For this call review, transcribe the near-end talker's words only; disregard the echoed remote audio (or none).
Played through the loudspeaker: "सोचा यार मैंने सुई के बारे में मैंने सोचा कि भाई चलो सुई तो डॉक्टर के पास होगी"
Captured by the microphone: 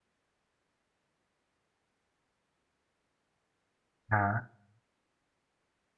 हाँ